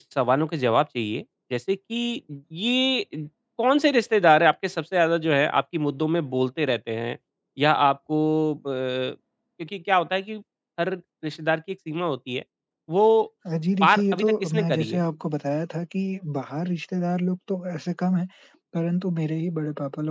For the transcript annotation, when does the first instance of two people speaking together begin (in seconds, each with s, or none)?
13.8 s